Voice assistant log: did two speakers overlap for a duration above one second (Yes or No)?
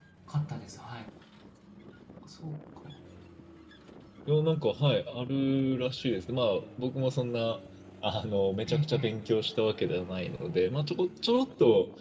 No